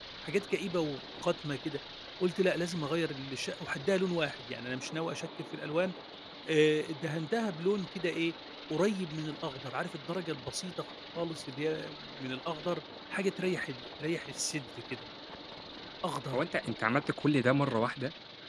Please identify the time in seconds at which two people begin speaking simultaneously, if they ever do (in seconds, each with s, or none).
none